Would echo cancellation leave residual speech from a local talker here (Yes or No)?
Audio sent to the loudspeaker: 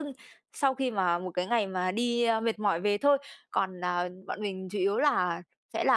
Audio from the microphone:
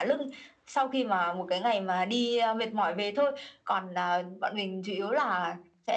No